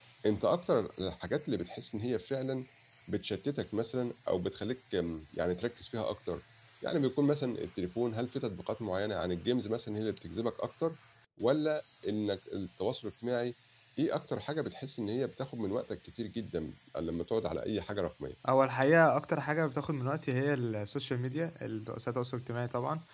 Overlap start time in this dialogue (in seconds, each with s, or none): none